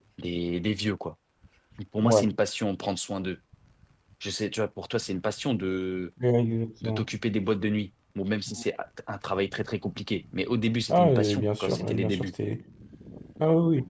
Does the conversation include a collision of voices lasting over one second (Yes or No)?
Yes